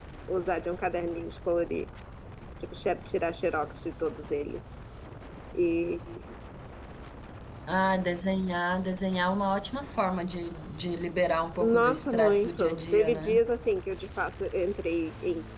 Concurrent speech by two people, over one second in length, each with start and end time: 11.6-13.4

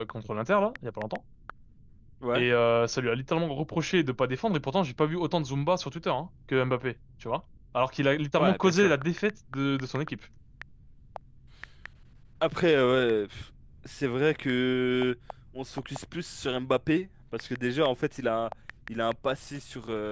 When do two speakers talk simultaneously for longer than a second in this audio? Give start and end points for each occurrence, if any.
none

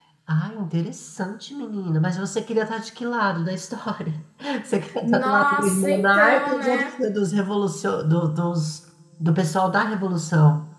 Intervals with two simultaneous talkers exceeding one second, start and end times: 5.0-6.9

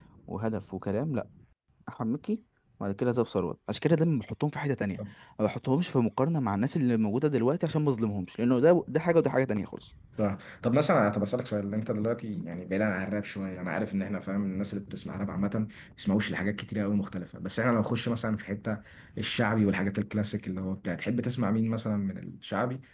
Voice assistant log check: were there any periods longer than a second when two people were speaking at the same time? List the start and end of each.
none

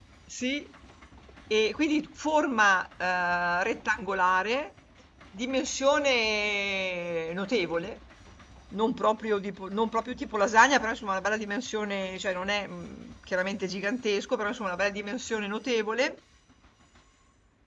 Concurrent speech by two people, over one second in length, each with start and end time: none

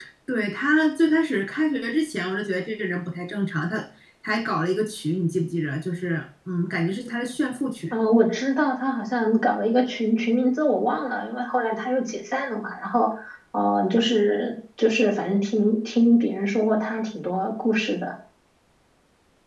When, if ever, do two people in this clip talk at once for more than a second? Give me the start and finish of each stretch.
none

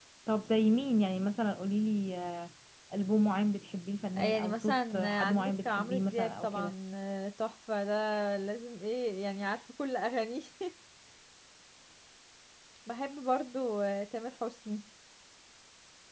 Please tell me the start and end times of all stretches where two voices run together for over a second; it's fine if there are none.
4.1-6.7

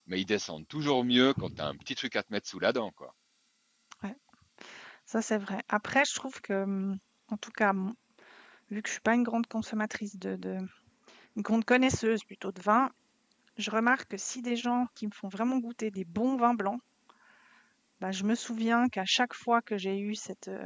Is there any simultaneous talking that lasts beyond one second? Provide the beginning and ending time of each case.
none

